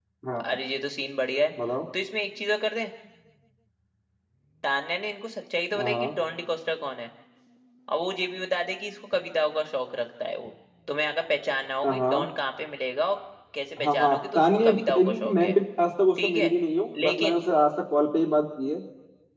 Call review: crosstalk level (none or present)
present